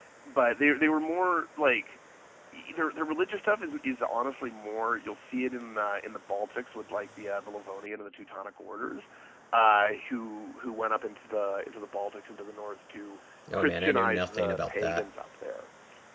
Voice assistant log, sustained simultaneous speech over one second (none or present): present